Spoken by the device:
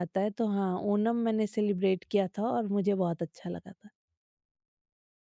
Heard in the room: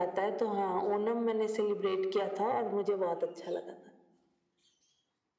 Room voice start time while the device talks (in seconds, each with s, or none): none